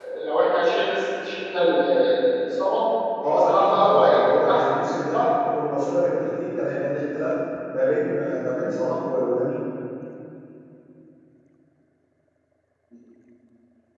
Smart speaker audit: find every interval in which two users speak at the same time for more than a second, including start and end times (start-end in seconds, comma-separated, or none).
3.2-4.6